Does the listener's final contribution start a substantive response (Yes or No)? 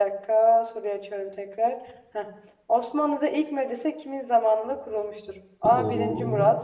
No